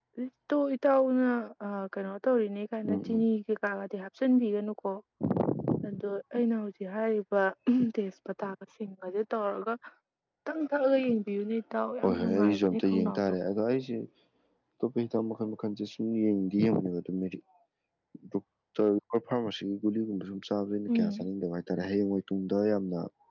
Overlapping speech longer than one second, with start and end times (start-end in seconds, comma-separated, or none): 12.0-13.3